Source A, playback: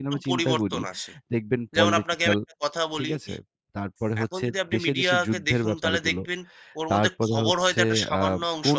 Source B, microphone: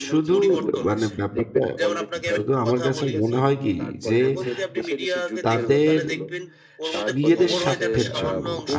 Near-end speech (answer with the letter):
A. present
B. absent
A